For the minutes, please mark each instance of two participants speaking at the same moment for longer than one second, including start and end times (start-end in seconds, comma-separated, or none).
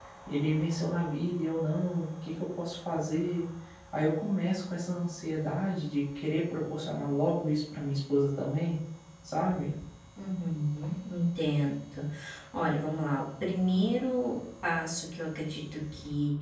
none